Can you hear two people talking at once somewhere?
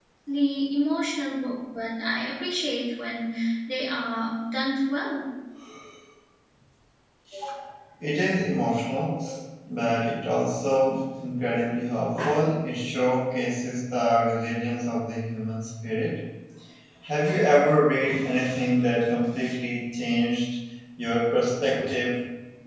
No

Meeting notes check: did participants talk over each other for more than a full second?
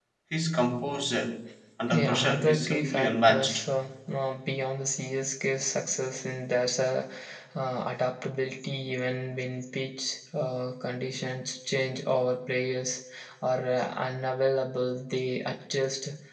Yes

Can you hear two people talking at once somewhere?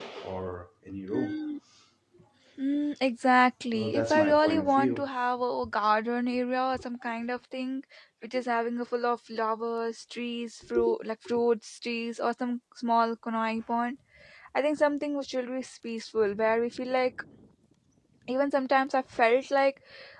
Yes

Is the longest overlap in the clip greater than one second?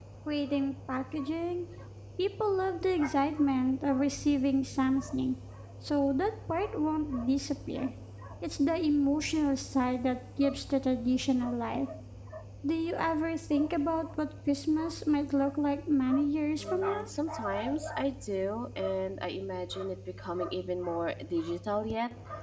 No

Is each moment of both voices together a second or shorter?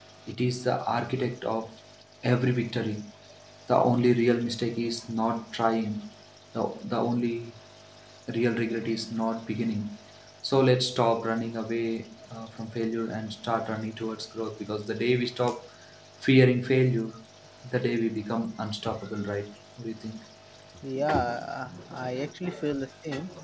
Yes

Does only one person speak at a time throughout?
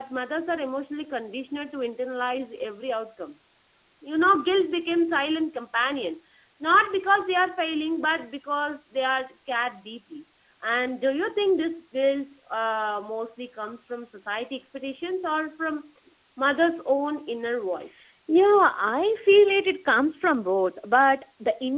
Yes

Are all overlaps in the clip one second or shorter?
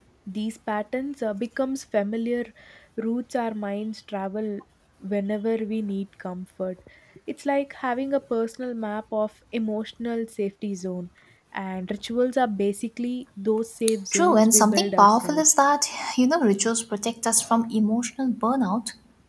No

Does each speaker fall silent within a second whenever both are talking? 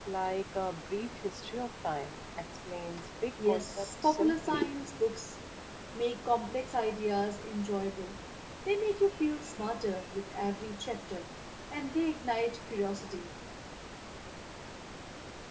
No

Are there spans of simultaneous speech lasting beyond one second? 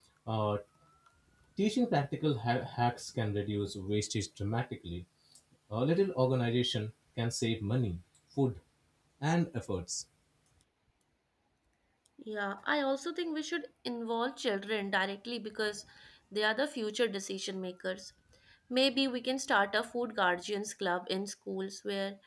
No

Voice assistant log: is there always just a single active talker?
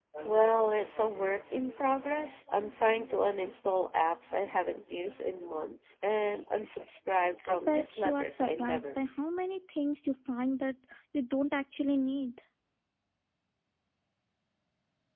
No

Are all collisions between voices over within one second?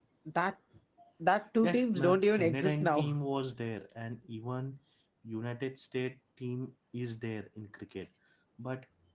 No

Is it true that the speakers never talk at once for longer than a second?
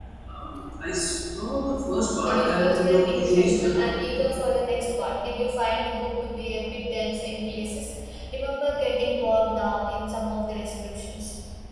No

